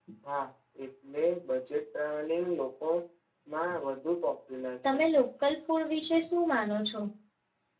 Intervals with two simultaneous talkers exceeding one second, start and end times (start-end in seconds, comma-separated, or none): none